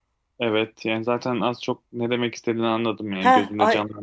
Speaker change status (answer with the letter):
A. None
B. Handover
B